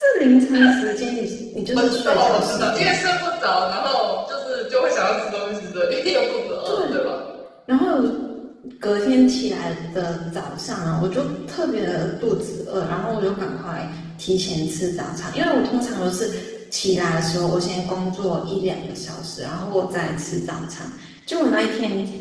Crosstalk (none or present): present